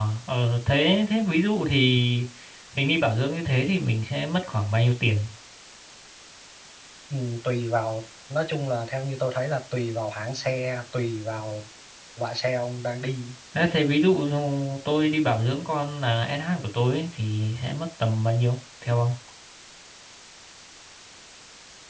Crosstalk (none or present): none